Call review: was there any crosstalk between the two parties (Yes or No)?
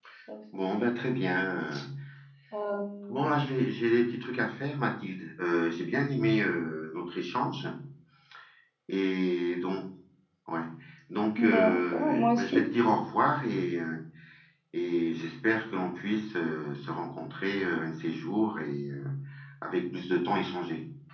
Yes